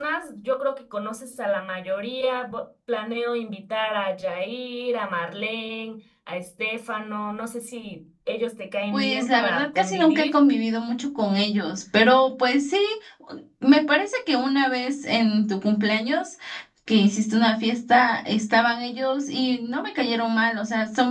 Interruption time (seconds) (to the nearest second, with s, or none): 9 s